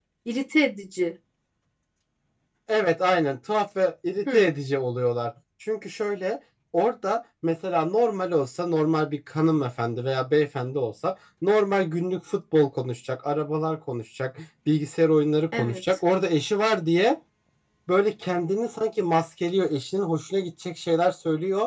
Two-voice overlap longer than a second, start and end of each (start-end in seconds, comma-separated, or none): none